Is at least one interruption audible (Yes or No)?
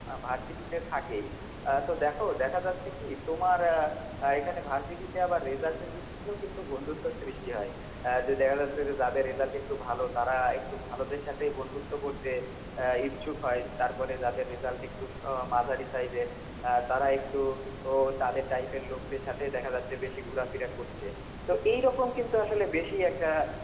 No